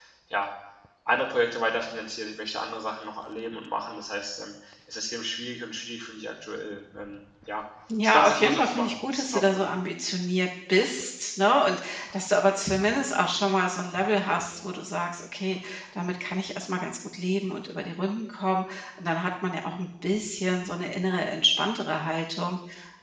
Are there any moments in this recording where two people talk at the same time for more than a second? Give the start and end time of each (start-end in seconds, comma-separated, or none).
8.0-9.7